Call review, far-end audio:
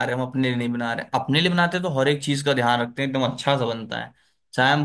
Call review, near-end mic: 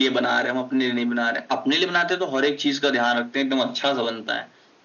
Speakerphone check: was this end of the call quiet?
Yes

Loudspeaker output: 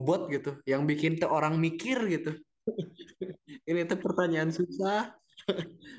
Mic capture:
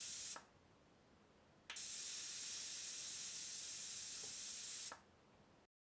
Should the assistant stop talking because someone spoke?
No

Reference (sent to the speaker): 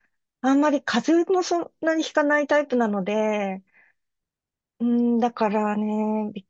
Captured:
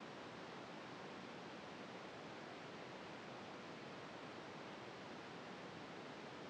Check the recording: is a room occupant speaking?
No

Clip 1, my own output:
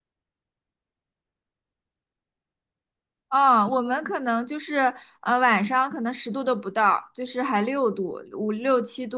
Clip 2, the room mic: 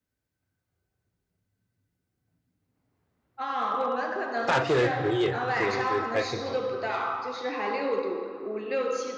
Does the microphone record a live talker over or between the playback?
Yes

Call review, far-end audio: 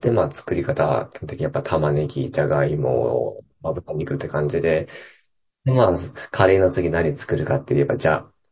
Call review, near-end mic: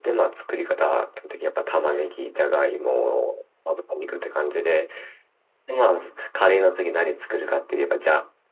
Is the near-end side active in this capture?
Yes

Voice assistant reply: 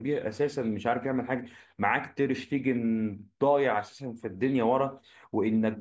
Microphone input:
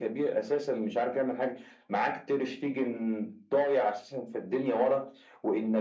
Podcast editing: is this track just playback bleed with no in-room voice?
Yes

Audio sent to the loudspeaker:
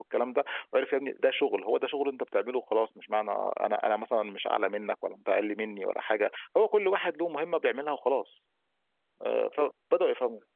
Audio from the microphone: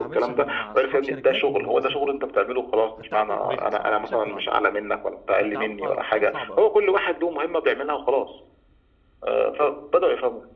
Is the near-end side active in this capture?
Yes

